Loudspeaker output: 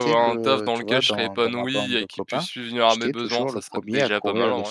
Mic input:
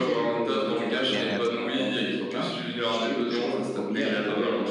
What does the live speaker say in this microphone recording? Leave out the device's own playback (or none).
de bien-être.